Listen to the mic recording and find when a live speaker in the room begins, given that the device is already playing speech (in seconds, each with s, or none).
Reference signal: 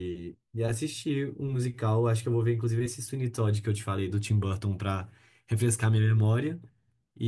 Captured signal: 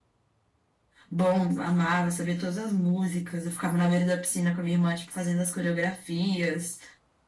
1.1 s